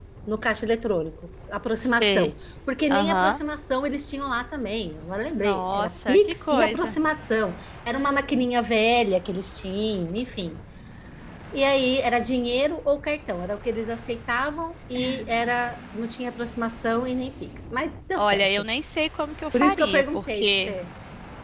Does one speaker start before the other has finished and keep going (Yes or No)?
Yes